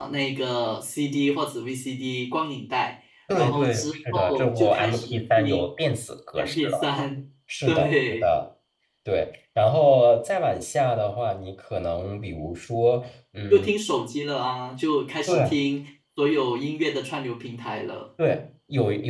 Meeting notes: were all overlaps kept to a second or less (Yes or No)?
No